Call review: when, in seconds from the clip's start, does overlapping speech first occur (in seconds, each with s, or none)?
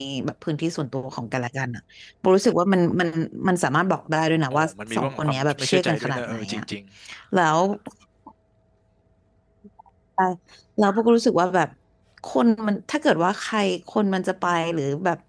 4.5 s